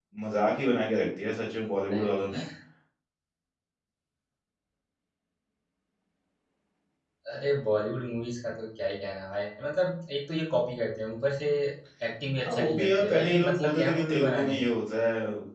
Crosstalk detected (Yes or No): Yes